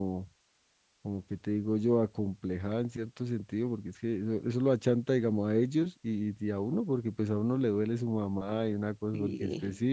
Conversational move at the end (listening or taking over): listening